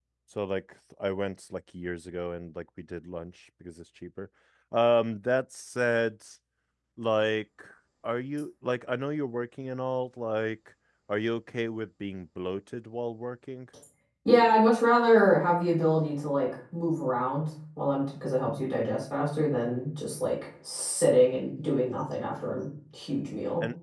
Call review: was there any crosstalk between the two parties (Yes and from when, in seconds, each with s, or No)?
No